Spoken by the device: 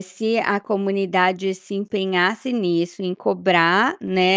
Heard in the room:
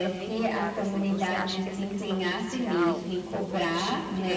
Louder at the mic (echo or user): echo